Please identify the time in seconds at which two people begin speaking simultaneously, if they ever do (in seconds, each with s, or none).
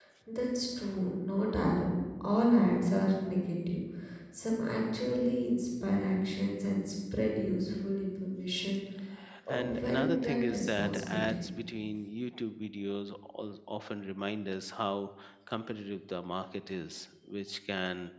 9.5 s